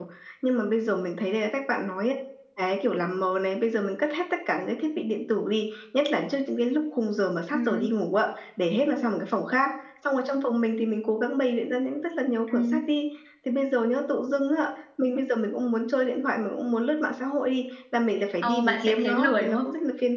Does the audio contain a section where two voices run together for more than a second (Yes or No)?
Yes